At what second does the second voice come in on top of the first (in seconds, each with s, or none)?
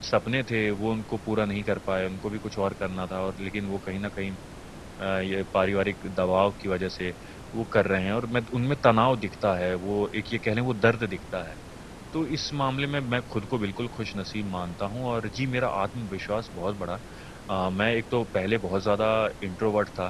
none